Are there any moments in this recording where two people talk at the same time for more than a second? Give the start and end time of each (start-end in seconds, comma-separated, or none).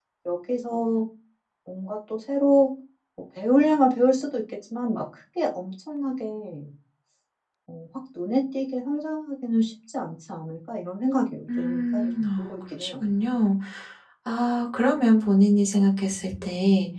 11.6-13.0